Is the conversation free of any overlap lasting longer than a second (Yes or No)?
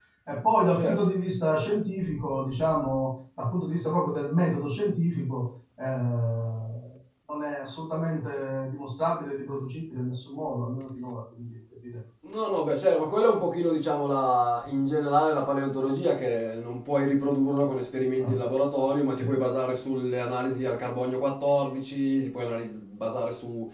Yes